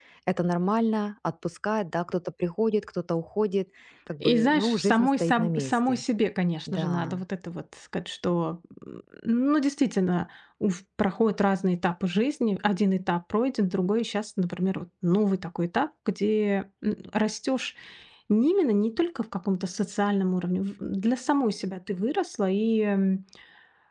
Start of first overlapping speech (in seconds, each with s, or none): 4.2 s